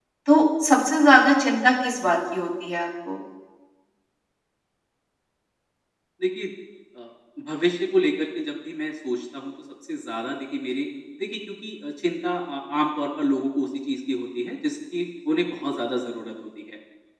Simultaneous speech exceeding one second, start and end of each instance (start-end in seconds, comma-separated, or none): none